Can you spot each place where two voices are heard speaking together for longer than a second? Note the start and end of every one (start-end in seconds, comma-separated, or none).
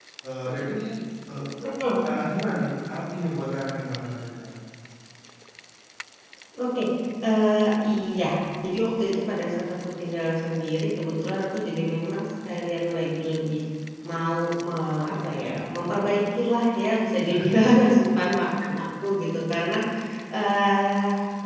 none